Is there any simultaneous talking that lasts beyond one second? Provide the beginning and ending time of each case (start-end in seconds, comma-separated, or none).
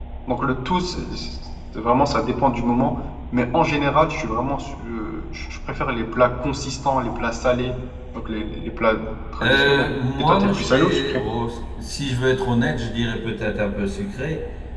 9.4-11.2